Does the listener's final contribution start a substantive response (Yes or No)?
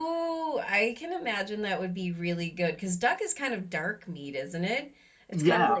No